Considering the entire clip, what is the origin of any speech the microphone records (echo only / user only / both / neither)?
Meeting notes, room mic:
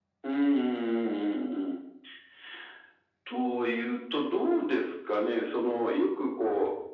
echo only